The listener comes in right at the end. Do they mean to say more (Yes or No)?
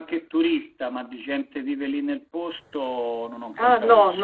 Yes